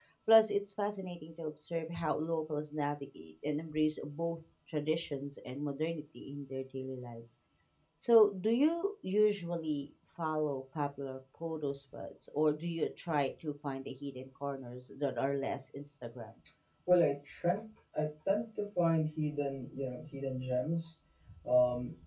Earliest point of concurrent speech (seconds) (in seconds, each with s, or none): none